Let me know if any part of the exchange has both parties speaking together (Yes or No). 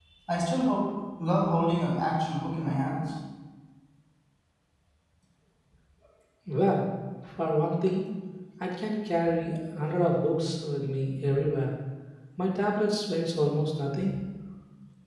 No